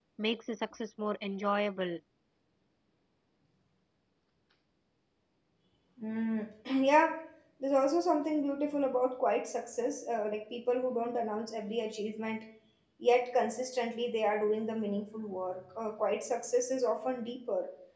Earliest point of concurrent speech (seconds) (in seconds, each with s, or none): none